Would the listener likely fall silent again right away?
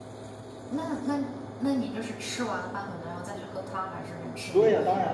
No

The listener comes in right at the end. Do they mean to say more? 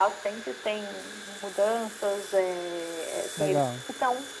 No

